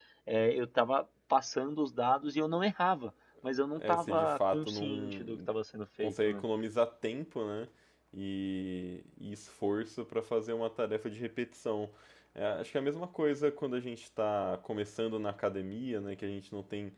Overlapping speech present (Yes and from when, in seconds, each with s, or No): Yes, from 3.8 s